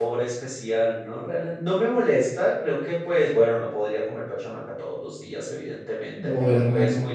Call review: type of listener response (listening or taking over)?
listening